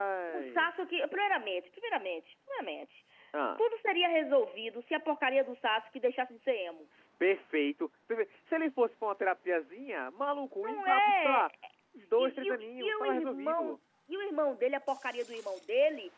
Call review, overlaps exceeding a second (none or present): present